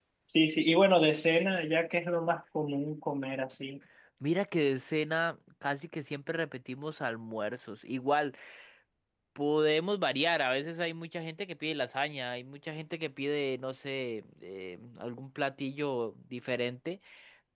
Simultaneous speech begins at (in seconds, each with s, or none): none